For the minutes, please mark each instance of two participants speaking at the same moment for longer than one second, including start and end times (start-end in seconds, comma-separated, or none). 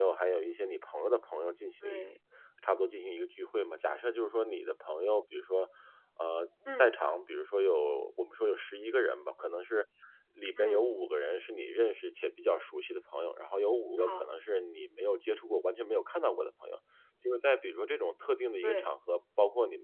none